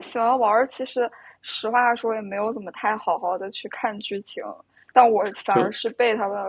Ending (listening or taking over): listening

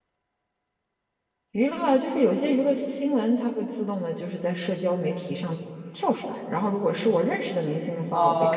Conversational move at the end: taking over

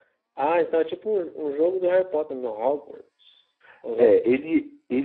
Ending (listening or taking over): taking over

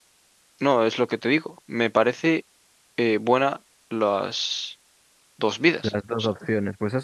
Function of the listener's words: taking over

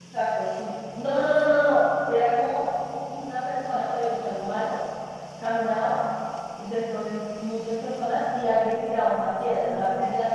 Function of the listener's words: listening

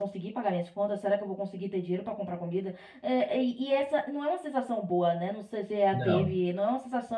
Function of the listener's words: listening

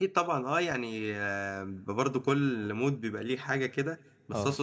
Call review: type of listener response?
listening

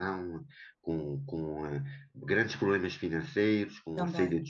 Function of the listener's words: listening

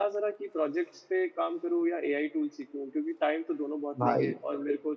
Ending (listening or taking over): listening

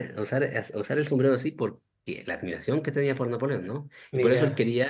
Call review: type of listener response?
listening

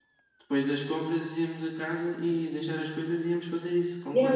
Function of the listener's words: taking over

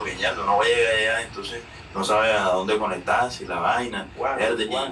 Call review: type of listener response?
taking over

